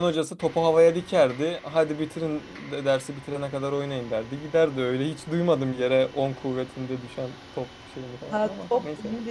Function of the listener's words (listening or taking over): taking over